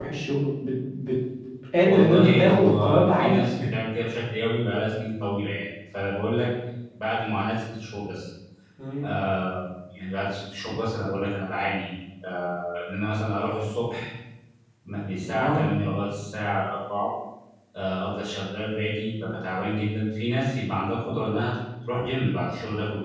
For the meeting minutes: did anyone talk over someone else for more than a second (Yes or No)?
Yes